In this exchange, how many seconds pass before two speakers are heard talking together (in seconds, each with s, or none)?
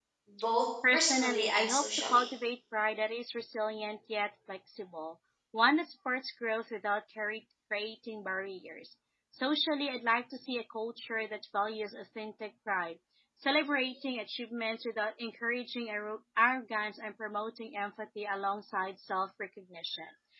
0.9 s